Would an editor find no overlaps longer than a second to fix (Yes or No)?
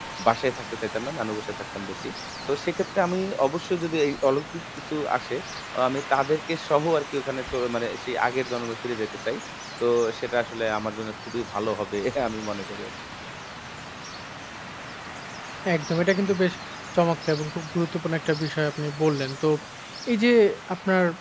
Yes